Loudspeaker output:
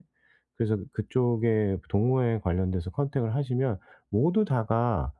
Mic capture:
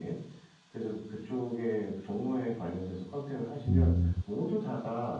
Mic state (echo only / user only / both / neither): both